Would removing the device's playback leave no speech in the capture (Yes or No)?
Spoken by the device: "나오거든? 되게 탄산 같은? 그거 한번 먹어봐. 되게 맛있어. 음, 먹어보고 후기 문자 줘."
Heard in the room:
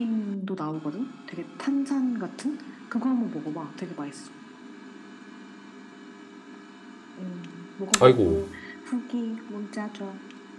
No